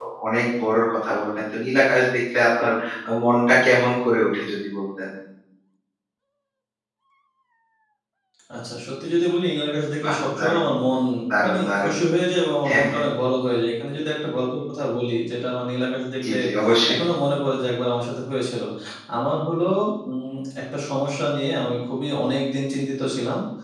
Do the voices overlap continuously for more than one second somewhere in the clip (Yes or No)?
No